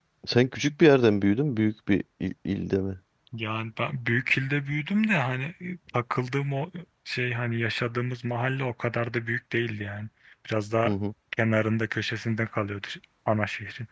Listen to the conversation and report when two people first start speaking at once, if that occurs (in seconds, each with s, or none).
none